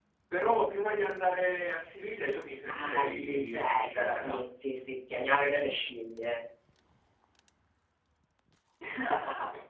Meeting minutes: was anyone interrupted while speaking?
Yes, from 2.7 s

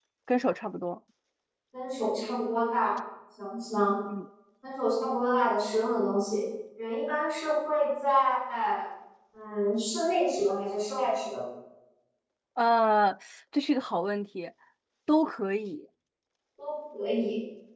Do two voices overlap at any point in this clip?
No

